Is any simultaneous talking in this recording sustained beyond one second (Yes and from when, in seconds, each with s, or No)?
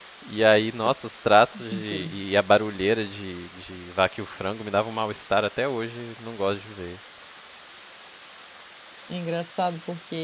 No